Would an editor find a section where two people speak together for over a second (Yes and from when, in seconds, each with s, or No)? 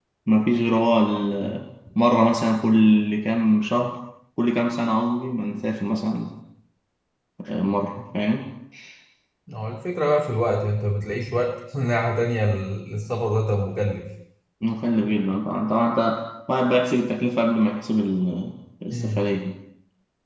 No